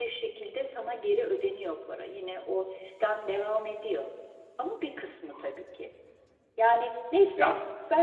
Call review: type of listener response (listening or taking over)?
listening